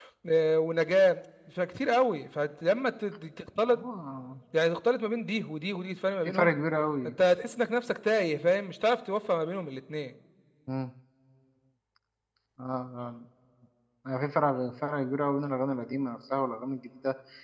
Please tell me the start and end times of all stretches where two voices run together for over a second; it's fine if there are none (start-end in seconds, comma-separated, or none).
none